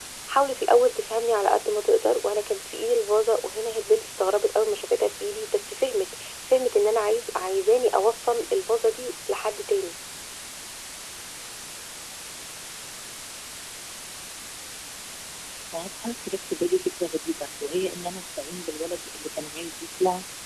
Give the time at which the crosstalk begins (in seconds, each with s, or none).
none